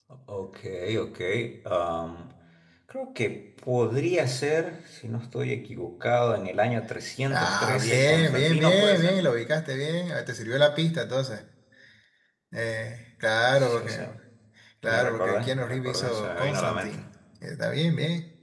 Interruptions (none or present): present